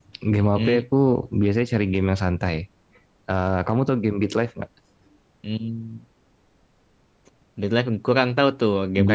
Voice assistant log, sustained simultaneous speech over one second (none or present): none